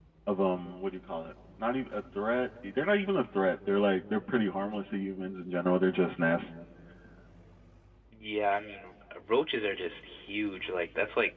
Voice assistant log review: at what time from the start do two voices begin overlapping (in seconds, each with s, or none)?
none